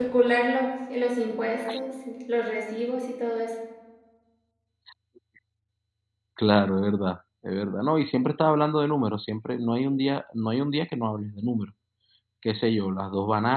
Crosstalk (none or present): none